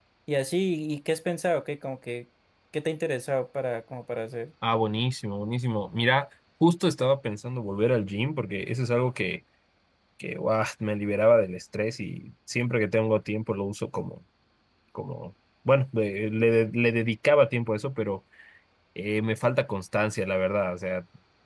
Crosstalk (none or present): none